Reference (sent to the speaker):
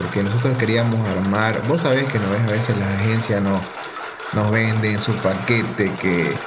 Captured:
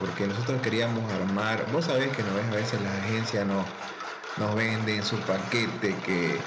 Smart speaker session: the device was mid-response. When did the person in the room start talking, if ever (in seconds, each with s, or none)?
none